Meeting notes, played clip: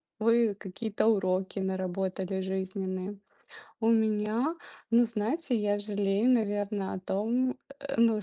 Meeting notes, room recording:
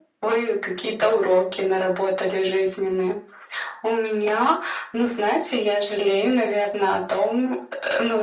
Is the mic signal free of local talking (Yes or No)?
Yes